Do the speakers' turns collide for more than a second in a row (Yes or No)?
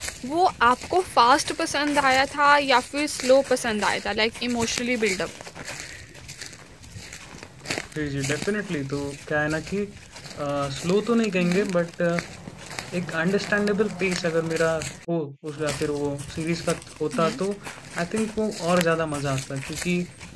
No